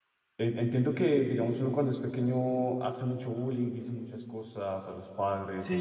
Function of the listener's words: taking over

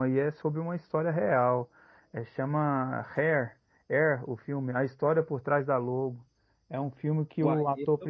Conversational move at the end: listening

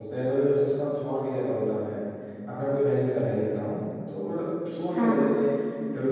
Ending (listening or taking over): listening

